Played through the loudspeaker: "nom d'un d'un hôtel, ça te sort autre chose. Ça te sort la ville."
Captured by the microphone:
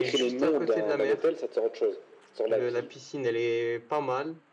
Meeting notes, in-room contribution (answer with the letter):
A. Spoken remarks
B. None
A